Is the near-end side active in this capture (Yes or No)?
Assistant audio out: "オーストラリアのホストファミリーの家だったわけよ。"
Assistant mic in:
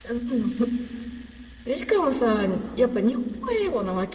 Yes